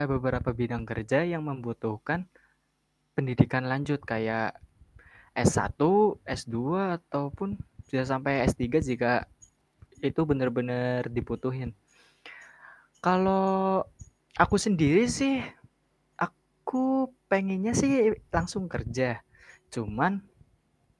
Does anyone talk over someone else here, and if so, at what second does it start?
none

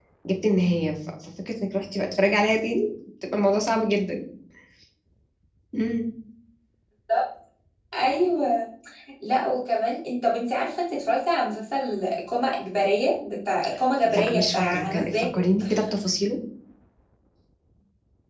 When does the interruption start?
14 s

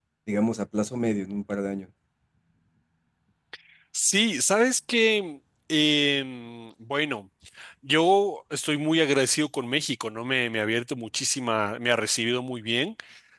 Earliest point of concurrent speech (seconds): none

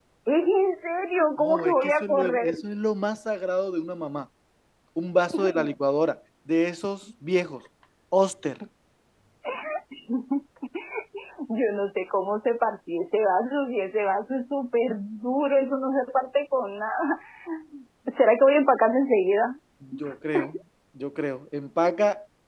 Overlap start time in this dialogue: 1 s

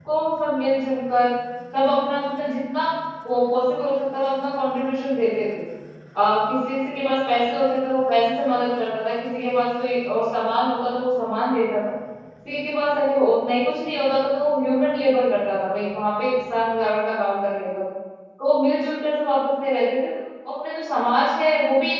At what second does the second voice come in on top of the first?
none

